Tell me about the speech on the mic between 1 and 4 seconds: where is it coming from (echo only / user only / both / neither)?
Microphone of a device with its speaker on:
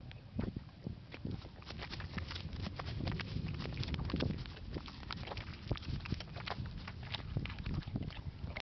neither